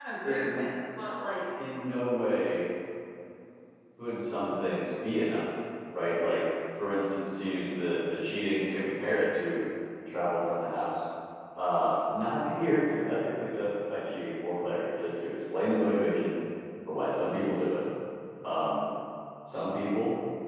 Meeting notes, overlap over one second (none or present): none